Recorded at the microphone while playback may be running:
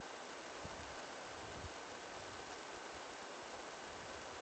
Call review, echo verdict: none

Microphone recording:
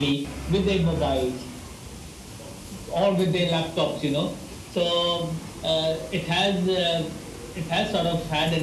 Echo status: present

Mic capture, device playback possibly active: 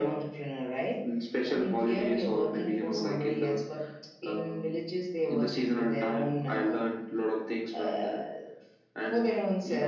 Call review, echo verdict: present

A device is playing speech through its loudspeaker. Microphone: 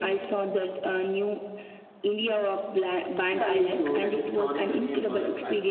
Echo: present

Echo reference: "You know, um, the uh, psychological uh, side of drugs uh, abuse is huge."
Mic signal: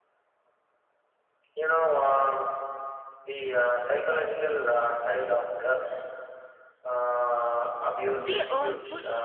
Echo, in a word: present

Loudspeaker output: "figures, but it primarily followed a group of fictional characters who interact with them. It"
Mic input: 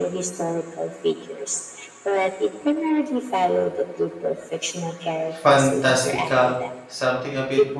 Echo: present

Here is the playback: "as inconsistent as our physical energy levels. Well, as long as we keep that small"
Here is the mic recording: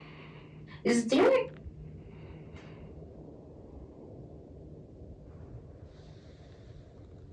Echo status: none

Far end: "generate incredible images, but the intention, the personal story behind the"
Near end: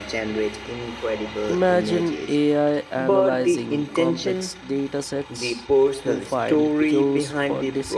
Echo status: present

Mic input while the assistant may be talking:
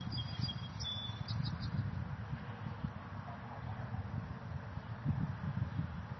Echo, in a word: none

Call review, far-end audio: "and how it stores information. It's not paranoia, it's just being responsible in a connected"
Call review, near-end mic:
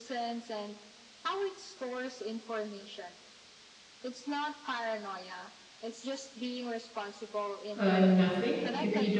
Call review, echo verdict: present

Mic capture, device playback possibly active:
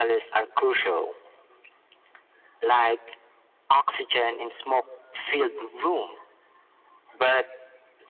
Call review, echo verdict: present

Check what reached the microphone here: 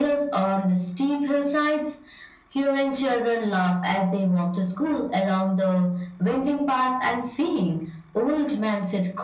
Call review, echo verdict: present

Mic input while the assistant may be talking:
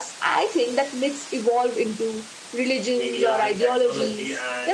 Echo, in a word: present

